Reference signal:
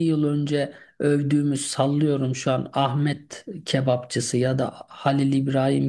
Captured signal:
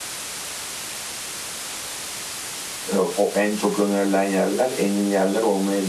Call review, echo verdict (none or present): none